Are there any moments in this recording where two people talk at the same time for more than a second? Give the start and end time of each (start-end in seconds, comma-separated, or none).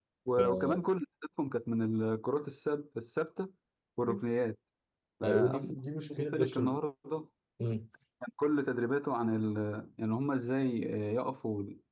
5.2-6.8